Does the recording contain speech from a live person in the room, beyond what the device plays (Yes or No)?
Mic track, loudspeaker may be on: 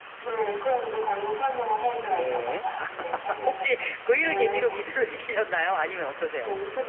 Yes